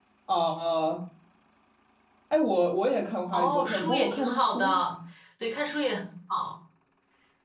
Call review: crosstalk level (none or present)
present